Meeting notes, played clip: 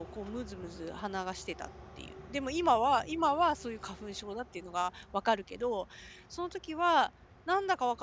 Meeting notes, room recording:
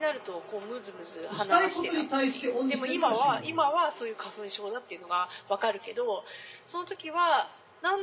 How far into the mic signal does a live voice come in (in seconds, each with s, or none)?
1.3 s